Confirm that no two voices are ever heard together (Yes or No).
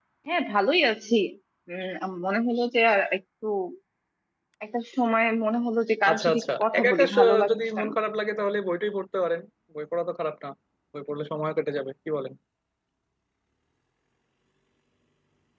No